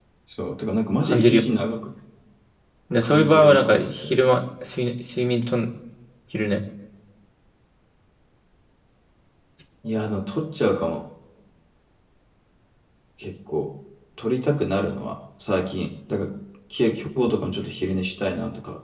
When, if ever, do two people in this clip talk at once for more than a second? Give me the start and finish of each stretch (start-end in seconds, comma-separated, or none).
3.0-4.2